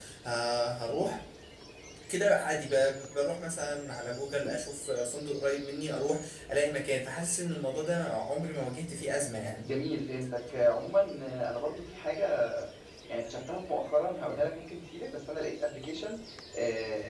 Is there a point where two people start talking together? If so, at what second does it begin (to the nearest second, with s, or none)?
none